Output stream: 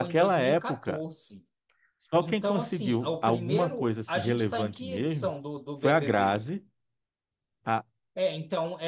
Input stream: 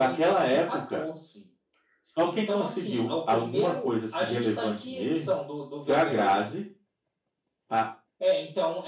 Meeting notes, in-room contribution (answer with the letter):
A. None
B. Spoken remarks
A